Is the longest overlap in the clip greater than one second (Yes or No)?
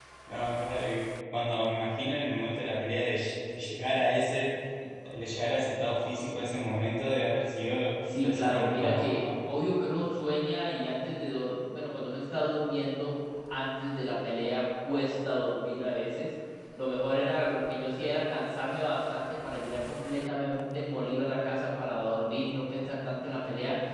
Yes